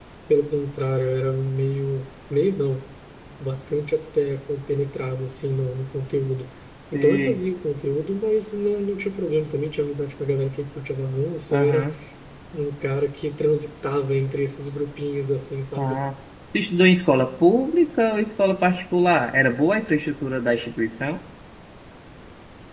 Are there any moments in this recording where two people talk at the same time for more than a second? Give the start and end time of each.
none

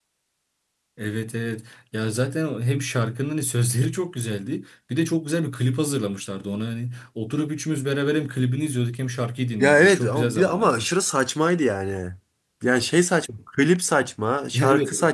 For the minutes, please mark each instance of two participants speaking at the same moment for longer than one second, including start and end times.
9.6-10.9

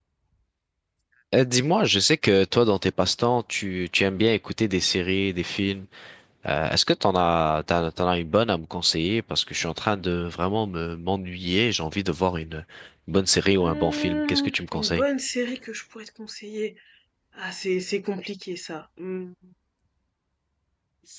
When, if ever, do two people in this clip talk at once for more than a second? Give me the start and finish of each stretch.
13.6-15.0

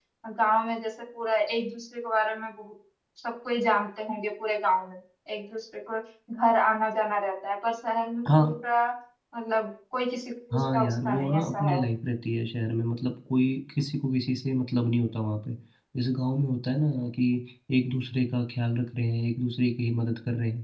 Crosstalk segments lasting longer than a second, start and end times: 10.5-11.8

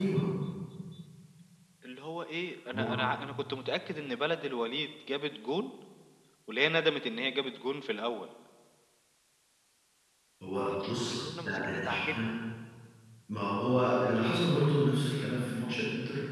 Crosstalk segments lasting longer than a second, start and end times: 10.6-12.3

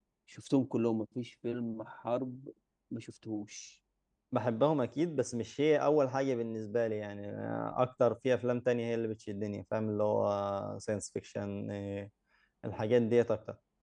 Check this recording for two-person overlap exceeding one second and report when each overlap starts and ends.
none

